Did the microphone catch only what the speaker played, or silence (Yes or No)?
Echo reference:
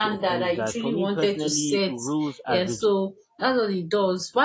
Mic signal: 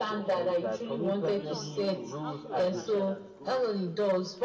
No